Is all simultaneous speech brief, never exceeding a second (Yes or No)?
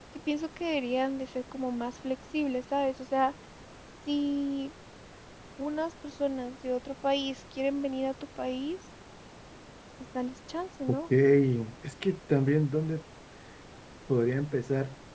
Yes